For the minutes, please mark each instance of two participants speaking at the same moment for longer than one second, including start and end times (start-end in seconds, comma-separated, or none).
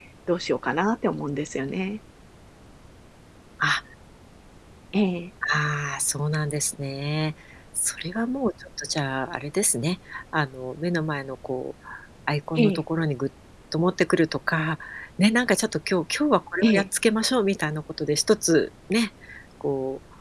none